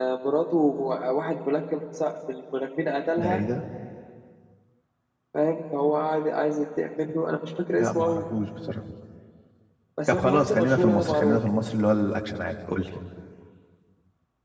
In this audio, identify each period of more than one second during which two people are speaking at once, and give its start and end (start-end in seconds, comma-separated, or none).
10.1-11.4